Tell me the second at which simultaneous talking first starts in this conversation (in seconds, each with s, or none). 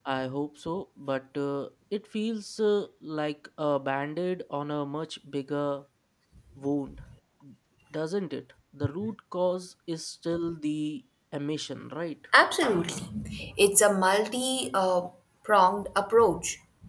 none